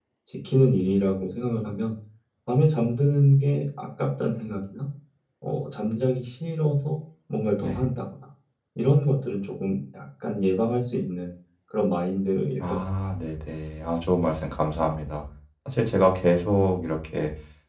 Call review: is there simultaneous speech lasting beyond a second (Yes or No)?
No